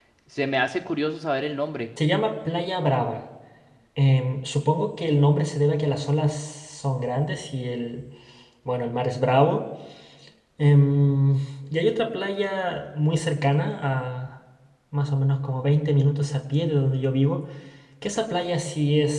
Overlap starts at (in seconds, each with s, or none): none